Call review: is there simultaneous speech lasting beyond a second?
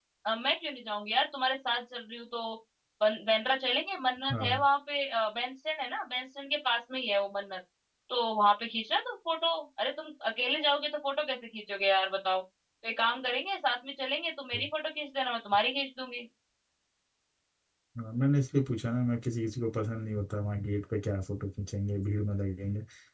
No

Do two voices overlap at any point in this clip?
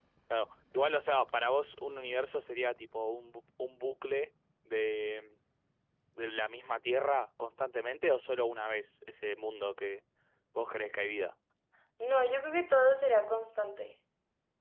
No

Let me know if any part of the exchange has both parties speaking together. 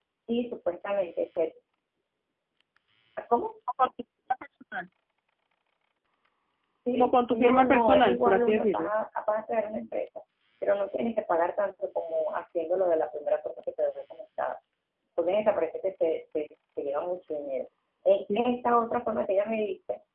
Yes, from 6.9 s

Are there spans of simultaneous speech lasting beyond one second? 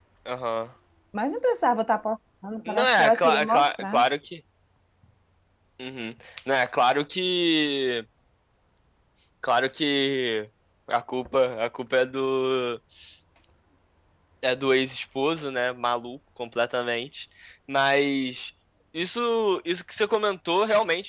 Yes, from 2.7 s

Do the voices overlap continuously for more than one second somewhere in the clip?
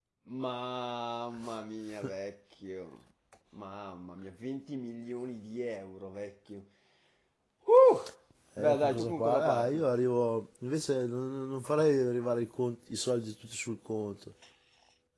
Yes, from 8.6 s

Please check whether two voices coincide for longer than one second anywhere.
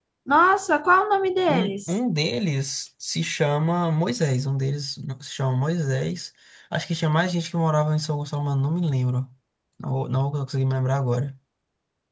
No

